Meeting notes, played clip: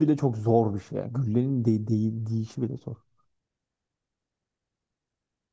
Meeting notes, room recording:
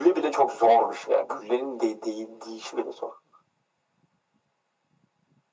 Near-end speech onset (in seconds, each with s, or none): none